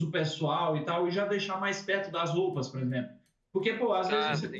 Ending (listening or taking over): listening